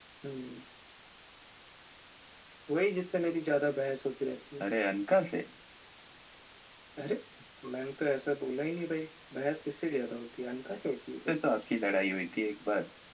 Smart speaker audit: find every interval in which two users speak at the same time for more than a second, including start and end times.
none

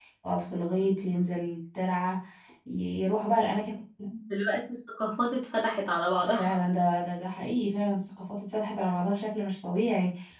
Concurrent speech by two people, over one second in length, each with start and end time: none

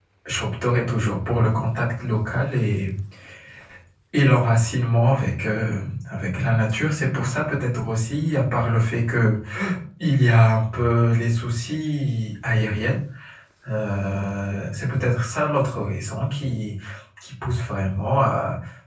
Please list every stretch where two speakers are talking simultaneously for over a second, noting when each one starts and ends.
none

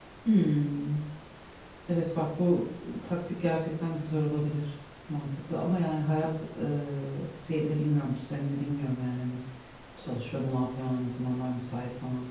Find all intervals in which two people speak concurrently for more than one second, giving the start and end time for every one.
none

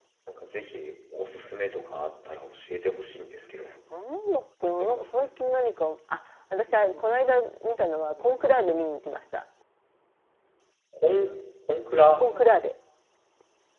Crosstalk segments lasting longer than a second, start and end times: none

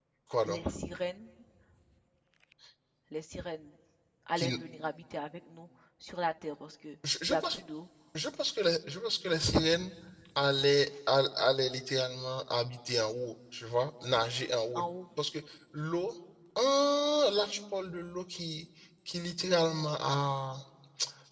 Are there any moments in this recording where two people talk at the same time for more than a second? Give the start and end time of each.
none

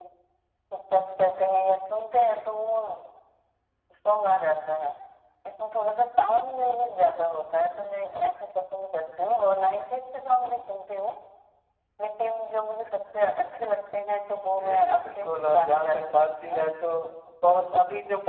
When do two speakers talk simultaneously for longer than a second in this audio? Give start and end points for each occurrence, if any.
14.4-16.6

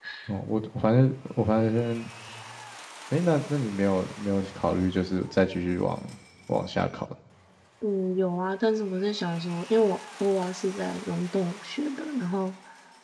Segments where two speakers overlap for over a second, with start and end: none

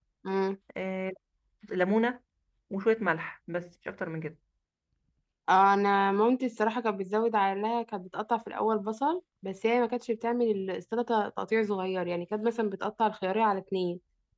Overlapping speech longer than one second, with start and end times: none

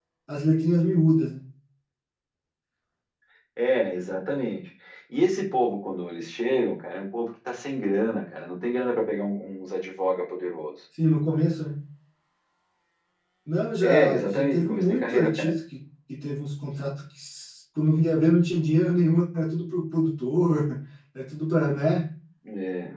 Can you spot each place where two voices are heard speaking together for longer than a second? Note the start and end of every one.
13.8-15.5

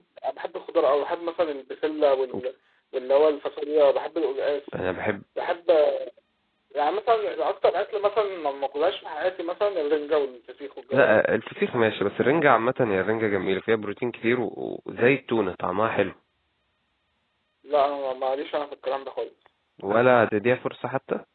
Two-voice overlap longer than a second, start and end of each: none

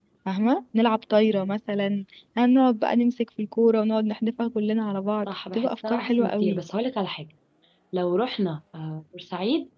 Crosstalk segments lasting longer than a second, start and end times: 5.2-6.6

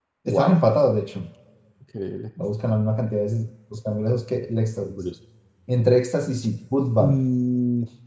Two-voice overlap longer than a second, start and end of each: none

